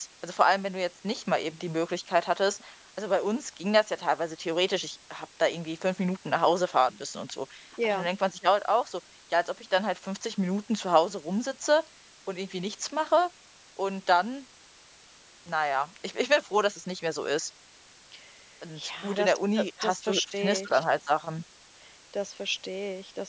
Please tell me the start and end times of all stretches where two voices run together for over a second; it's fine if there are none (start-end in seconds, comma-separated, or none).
18.8-20.8